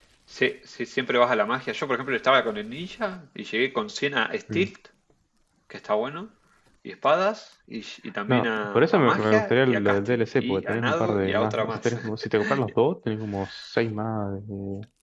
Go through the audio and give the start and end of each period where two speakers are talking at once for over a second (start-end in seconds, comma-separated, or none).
8.3-12.0